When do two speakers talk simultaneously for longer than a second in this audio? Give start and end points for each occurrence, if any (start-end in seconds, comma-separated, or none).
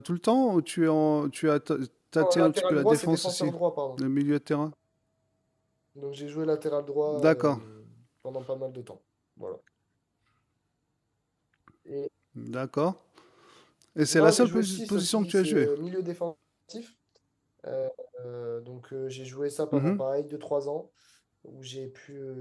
2.2-3.5, 14.1-15.7